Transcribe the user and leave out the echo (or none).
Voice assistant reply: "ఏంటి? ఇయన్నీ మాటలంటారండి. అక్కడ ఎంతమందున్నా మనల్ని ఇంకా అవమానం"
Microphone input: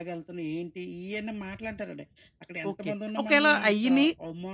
ఓకే. ఒకేళ అయ్యినియి